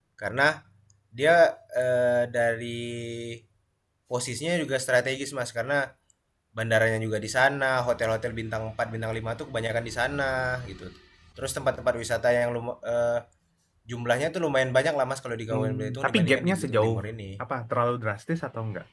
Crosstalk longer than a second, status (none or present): present